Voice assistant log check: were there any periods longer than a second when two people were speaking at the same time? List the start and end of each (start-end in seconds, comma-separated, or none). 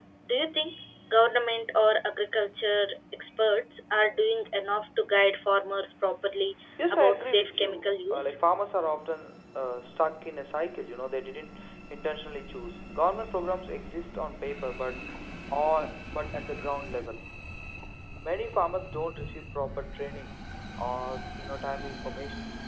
6.9-8.3